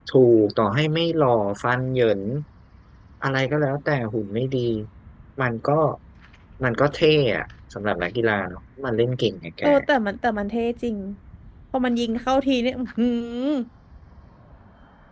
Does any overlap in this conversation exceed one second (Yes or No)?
No